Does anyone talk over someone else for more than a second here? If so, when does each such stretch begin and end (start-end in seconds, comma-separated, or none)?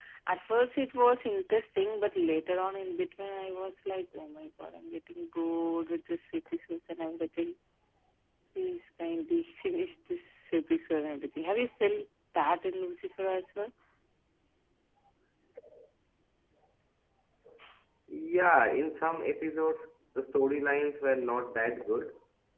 none